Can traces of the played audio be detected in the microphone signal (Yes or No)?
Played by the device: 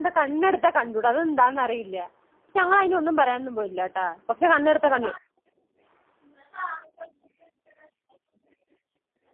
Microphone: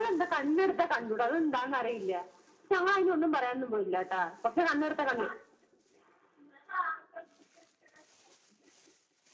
Yes